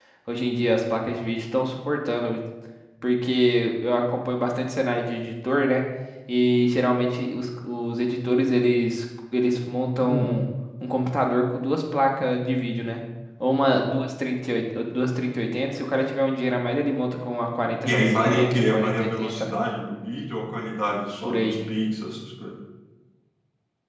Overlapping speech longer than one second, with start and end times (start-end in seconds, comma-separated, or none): 17.9-19.5